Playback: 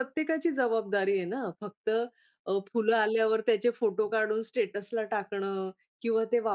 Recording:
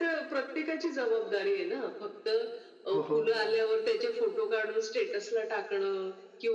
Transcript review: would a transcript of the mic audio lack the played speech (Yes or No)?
No